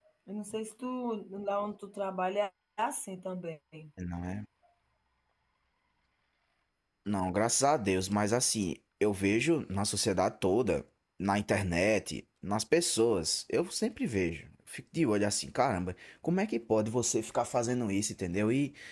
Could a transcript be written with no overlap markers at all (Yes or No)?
Yes